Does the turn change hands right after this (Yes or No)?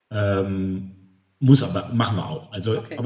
No